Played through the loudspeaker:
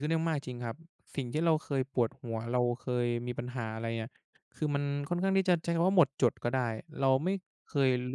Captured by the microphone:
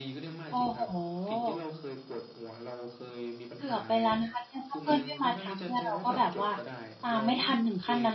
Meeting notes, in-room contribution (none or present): present